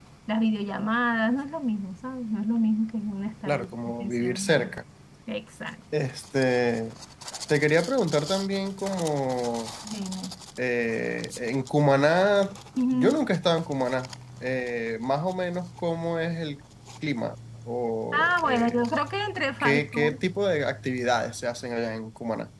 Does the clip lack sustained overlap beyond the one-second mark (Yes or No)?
No